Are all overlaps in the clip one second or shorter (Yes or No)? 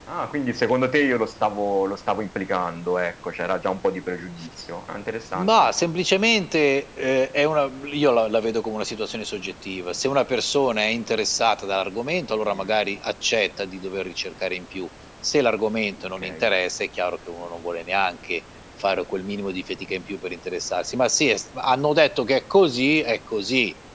Yes